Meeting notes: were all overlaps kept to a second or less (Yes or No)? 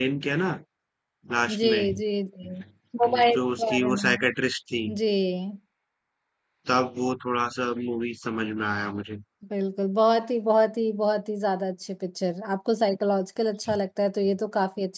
No